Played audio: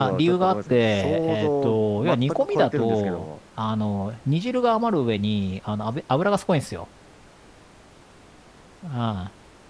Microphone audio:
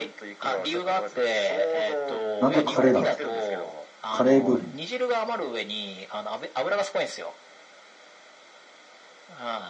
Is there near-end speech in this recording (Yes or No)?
Yes